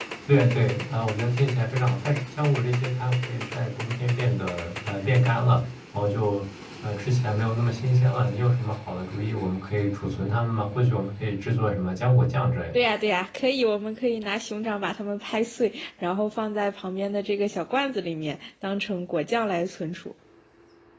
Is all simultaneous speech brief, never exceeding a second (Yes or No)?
Yes